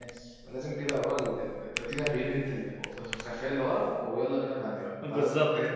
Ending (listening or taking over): taking over